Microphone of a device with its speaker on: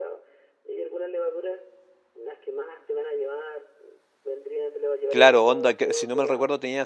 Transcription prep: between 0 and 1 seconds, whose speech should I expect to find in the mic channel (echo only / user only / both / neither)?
echo only